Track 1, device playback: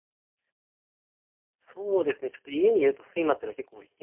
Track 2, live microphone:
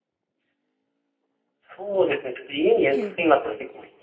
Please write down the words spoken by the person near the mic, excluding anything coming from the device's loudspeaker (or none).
ええ、